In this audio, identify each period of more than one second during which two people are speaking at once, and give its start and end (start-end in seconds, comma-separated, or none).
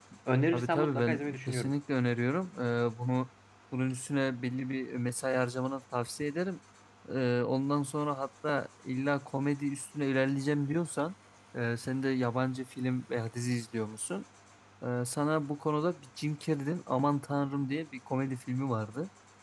0.5-1.8